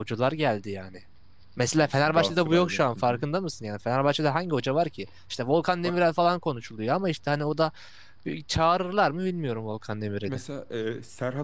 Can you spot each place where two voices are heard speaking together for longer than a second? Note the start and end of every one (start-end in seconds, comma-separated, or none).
1.8-3.2